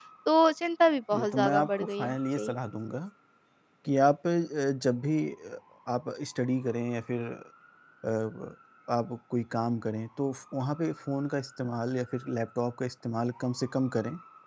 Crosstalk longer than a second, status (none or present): present